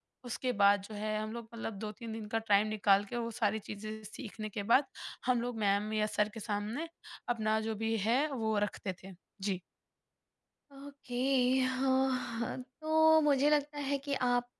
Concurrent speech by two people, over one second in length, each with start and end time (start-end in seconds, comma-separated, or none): none